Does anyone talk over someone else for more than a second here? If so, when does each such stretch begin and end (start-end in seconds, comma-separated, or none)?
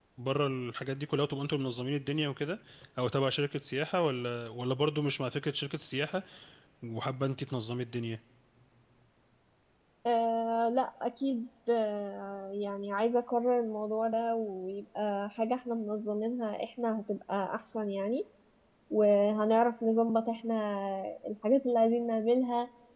none